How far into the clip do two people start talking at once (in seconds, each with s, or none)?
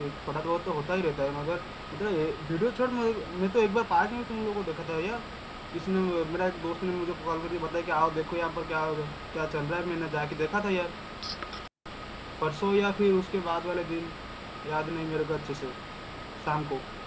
none